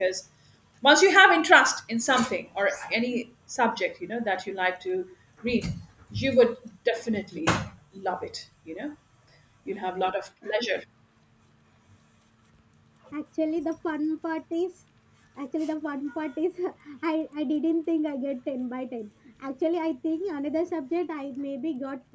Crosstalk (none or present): none